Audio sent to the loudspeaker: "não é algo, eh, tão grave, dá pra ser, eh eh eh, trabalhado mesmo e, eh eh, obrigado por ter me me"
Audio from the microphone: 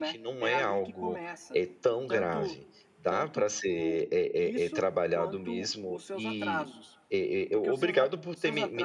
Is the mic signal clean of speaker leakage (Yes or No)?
No